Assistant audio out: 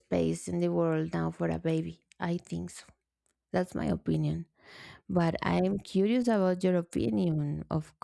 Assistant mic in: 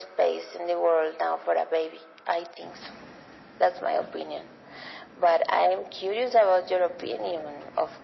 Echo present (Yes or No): Yes